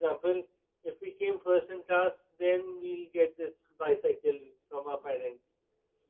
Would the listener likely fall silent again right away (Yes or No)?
Yes